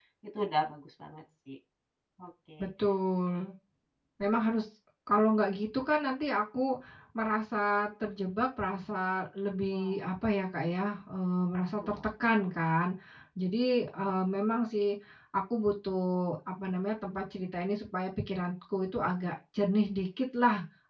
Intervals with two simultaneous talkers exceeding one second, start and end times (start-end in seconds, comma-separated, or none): none